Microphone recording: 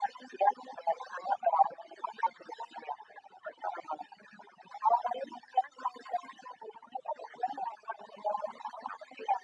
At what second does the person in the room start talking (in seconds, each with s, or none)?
none